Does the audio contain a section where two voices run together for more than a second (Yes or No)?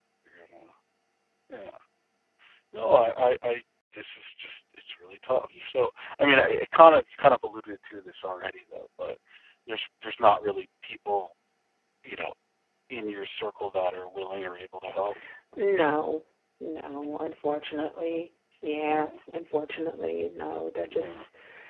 No